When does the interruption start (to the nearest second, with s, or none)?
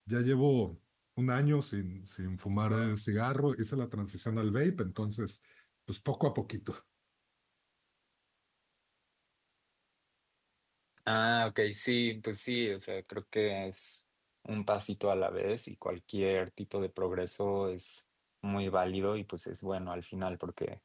none